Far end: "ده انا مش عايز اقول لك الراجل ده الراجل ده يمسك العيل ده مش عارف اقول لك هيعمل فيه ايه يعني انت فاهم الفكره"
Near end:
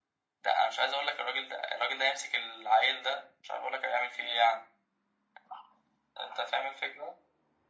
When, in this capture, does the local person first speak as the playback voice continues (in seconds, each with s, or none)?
none